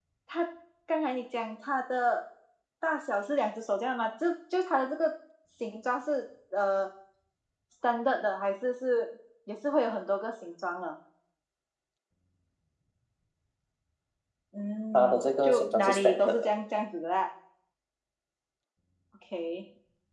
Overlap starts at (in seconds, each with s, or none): 14.9 s